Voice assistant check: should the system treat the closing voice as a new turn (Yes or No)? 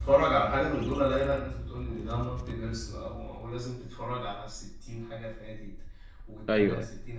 No